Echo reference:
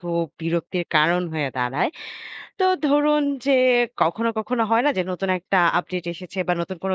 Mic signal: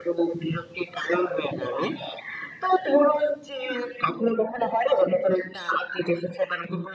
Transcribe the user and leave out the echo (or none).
none